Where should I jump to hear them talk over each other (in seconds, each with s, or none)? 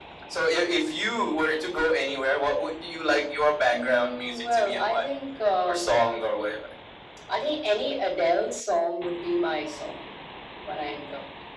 3.7 s